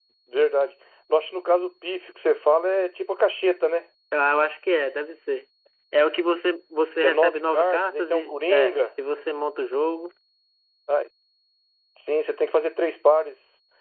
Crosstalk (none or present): present